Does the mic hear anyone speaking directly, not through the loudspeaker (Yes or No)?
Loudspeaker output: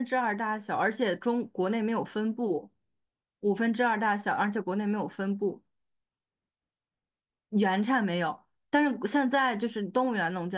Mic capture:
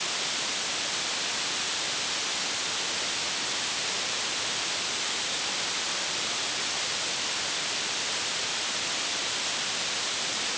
No